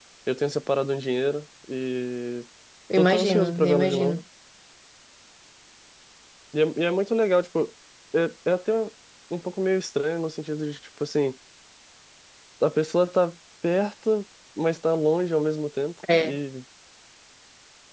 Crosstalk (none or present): present